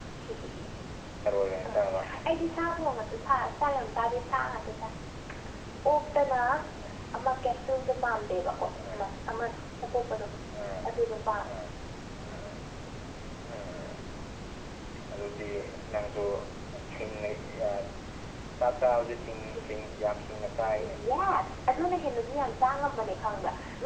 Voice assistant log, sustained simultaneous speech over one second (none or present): none